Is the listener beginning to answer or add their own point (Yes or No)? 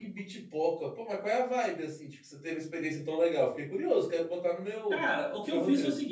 Yes